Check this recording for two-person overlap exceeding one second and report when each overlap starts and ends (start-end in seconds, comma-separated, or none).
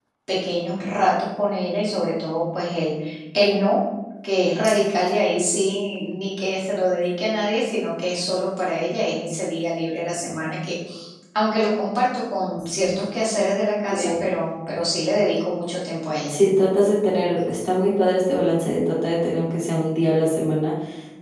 none